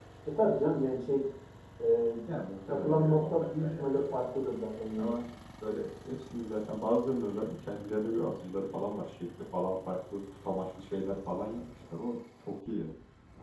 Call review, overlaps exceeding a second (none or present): present